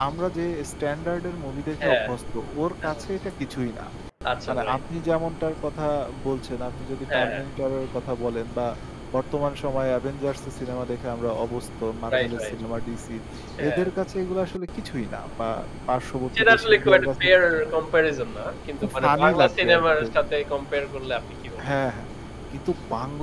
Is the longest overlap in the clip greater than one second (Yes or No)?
Yes